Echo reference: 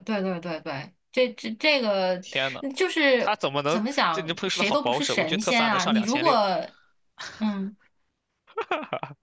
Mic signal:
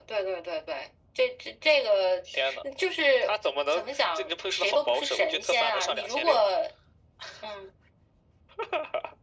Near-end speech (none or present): none